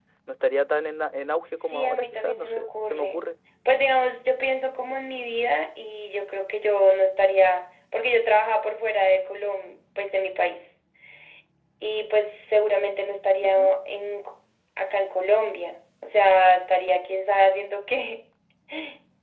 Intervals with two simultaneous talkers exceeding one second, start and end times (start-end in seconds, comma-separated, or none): 1.6-3.2